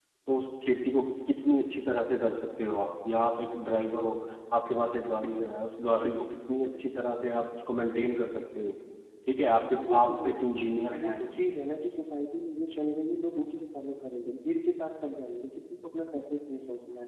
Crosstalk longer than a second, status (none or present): none